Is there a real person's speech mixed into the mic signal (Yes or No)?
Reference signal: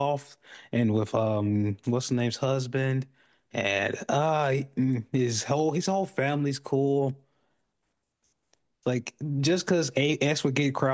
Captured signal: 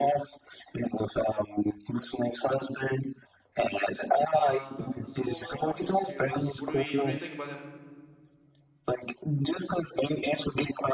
Yes